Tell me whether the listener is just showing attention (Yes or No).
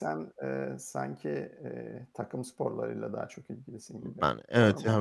No